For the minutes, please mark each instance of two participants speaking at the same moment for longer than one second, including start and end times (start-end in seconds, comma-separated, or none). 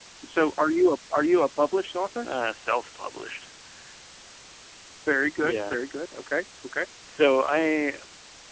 none